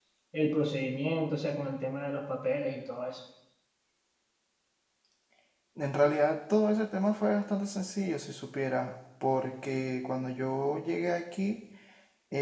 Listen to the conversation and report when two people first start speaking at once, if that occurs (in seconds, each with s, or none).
none